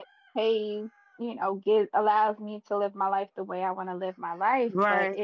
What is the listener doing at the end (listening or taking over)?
listening